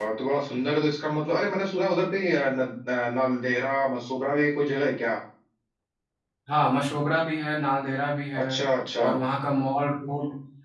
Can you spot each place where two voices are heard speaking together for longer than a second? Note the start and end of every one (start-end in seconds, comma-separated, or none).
none